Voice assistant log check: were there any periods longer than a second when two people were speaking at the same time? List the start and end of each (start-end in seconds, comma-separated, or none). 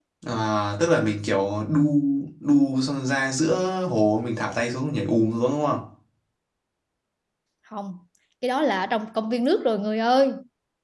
none